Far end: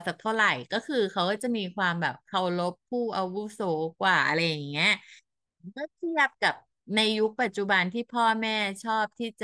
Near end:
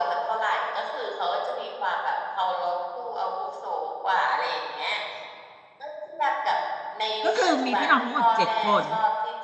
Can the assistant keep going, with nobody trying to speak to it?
No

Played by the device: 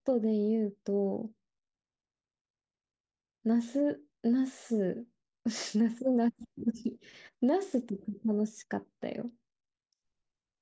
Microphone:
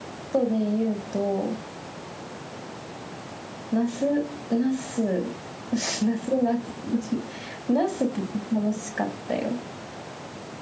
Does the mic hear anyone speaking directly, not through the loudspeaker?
No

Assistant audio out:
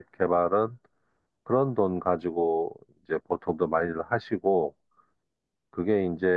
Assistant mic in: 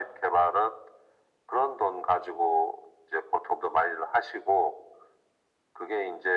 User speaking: No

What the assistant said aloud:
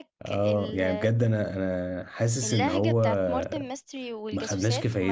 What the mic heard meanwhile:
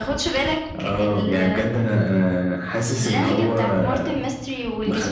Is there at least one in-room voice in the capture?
No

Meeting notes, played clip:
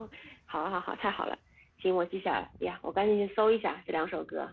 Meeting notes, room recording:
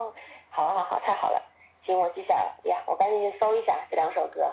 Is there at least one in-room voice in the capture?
No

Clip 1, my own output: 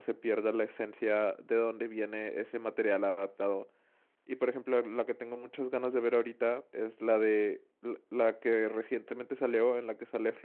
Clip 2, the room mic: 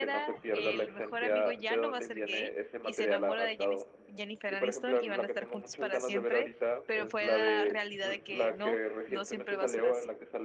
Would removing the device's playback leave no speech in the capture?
No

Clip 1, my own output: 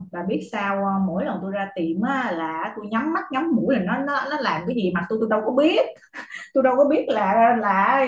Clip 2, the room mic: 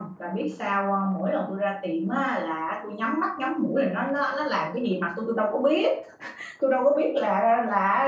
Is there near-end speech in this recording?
No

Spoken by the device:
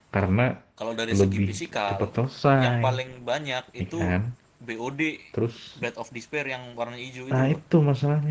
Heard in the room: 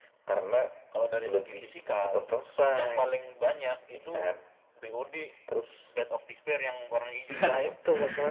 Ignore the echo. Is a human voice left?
Yes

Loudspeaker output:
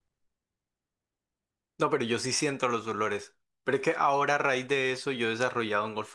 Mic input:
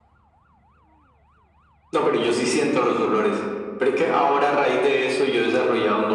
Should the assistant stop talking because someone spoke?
No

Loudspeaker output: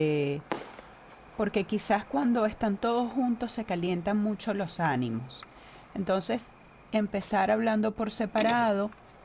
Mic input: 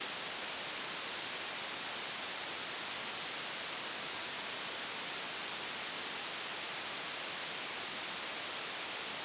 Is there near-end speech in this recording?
No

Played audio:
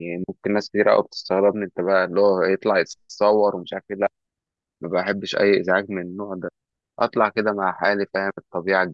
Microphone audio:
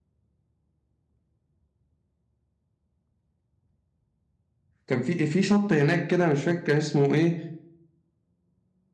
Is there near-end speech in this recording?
Yes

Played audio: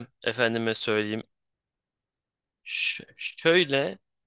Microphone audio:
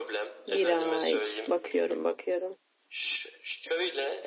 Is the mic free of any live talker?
No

